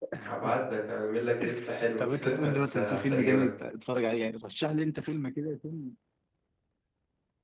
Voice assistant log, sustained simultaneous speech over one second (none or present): present